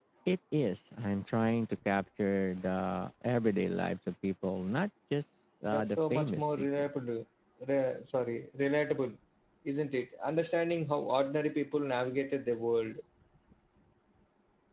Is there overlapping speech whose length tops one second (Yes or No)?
Yes